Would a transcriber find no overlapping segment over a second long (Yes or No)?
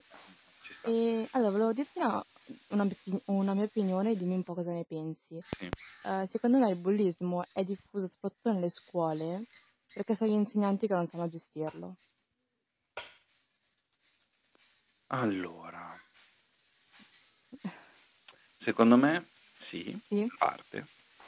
Yes